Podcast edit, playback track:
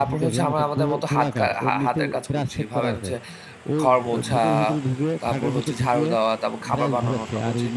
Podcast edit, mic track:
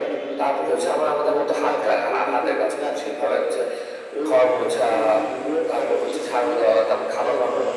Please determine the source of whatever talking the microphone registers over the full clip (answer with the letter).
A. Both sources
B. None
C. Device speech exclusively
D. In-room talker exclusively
C